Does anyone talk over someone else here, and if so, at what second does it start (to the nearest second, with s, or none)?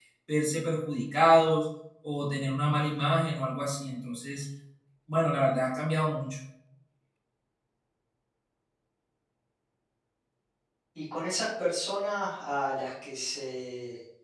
none